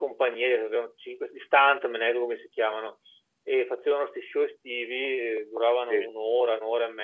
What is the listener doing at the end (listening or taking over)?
listening